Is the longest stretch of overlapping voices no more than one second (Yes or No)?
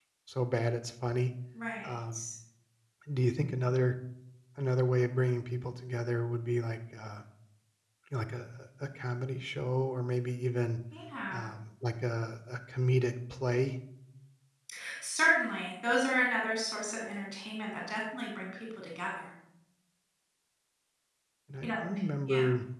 Yes